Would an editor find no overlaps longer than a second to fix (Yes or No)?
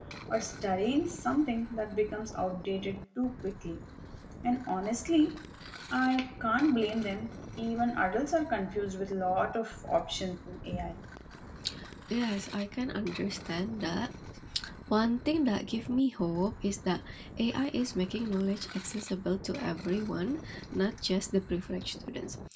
Yes